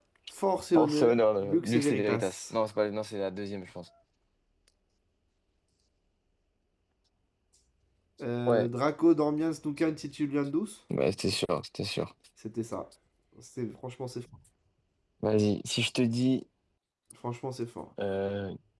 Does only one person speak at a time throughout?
No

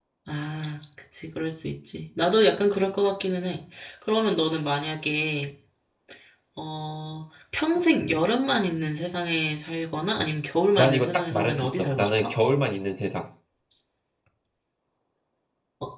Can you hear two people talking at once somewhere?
Yes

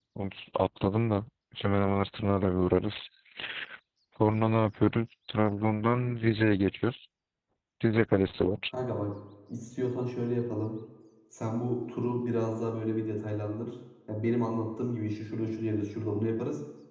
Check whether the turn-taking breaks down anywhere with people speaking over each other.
No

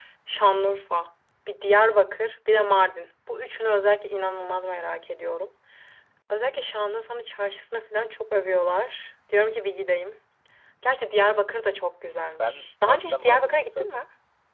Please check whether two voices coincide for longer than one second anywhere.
Yes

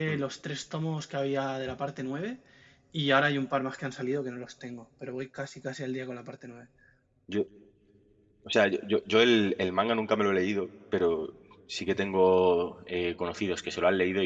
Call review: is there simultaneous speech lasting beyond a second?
No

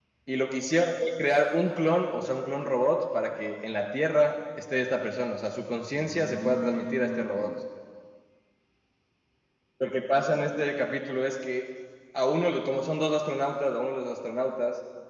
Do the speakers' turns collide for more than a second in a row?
Yes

